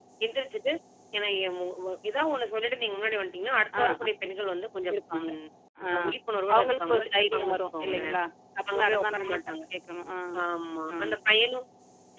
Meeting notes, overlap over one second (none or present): present